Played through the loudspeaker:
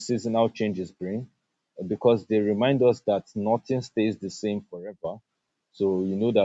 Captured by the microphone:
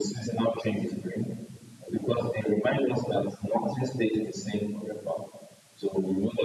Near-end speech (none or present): none